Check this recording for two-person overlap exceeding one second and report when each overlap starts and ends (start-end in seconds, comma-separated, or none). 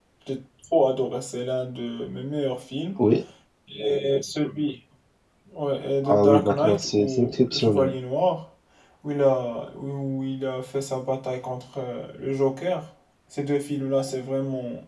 6.0-8.0